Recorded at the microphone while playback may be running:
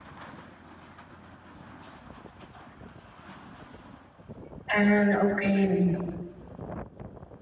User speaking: Yes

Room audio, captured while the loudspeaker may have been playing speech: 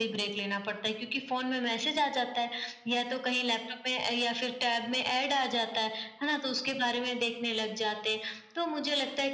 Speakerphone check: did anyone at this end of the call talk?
No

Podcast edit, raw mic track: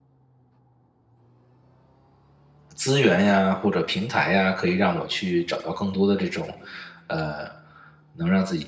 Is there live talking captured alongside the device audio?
Yes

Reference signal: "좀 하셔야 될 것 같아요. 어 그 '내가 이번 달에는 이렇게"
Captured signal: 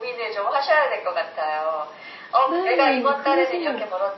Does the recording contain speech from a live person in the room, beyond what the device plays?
Yes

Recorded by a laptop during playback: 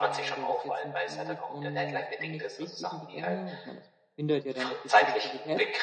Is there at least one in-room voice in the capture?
Yes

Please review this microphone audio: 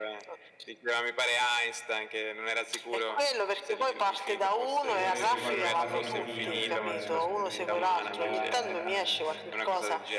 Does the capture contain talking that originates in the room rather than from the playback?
Yes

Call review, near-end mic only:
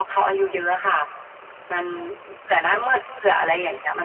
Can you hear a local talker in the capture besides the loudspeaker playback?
No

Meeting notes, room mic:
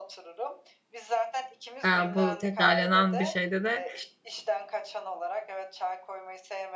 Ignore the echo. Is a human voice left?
Yes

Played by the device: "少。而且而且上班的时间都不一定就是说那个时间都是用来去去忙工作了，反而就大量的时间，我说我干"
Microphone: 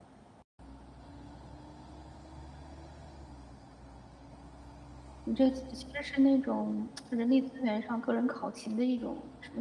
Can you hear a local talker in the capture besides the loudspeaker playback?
Yes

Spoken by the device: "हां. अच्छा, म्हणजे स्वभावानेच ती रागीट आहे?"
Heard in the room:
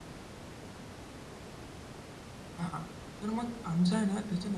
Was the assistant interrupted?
Yes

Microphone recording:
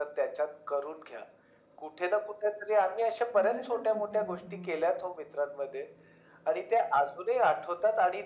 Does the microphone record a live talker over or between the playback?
Yes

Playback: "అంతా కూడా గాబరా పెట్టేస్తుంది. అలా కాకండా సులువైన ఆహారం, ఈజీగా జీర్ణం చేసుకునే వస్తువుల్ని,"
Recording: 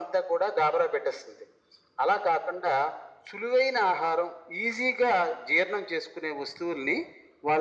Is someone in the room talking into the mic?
No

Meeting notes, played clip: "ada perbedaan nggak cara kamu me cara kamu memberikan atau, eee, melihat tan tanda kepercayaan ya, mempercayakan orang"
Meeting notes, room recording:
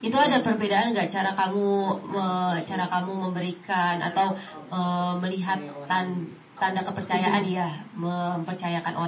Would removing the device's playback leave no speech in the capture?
No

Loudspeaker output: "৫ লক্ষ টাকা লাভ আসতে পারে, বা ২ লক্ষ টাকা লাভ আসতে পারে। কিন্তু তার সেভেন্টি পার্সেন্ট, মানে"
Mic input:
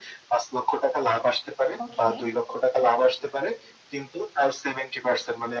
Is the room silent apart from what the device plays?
No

